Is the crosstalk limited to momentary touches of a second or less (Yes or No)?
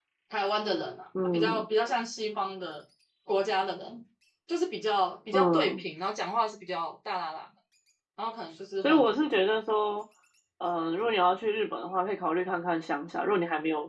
Yes